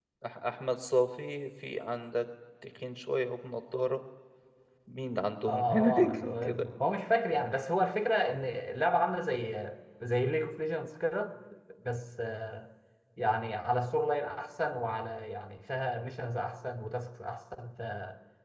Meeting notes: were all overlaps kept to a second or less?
No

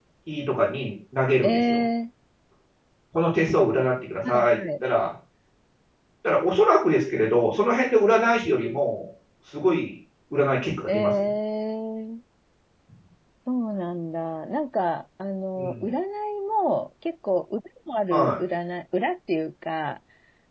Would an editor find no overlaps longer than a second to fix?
Yes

